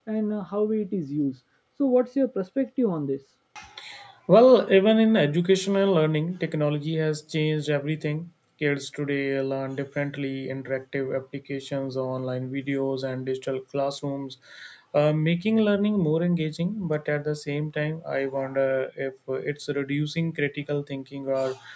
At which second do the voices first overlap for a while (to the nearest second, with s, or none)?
none